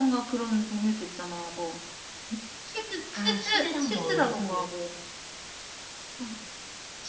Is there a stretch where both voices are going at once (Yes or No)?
Yes